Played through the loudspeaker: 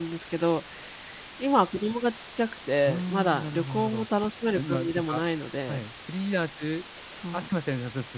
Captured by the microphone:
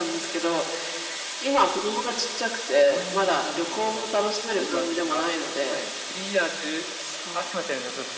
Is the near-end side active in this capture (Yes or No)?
No